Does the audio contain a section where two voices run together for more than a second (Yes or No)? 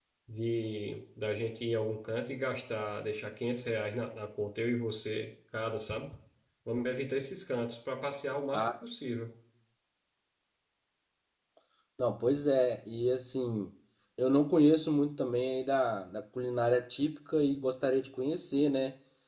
No